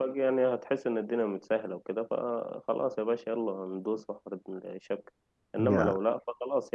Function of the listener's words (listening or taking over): listening